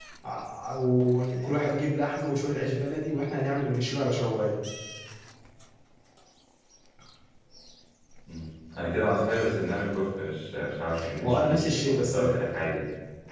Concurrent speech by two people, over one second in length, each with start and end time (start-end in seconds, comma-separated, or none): 11.2-12.4